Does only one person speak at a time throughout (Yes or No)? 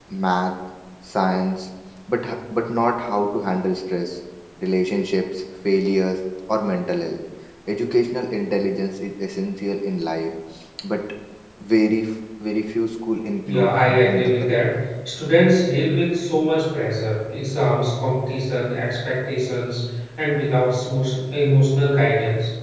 No